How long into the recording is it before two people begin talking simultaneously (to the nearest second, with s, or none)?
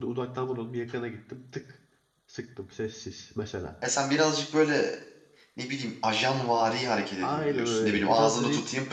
7 s